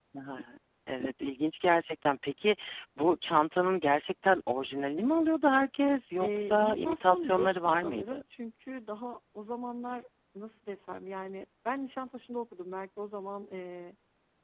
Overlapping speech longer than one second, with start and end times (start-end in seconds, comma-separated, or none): 6.2-8.2